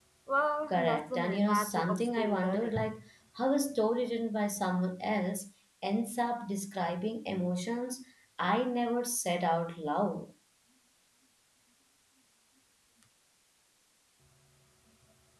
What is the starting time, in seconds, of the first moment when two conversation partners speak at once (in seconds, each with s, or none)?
0.7 s